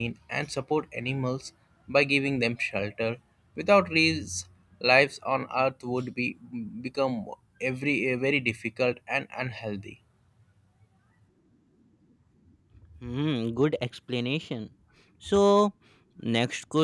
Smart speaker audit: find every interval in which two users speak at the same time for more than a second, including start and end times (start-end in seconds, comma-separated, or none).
none